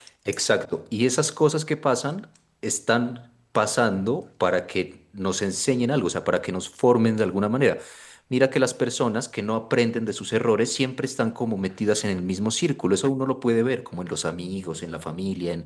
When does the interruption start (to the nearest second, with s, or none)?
none